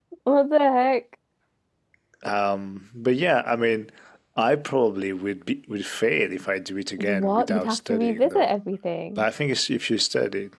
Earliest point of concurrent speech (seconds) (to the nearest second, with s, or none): 7 s